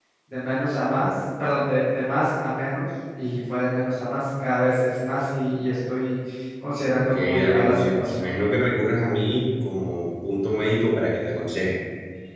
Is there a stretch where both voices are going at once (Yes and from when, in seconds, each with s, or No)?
Yes, from 7.0 s